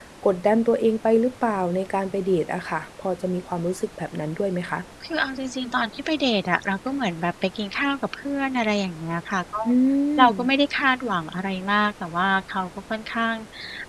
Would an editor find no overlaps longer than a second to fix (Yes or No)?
Yes